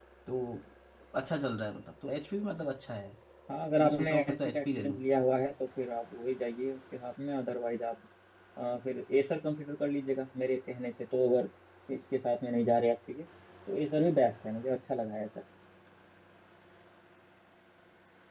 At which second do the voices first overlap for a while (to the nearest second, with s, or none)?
4 s